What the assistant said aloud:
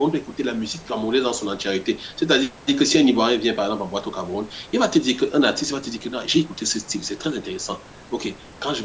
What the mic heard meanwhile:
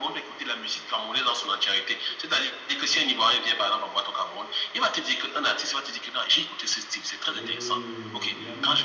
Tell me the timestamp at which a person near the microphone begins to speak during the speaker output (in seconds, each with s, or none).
7.3 s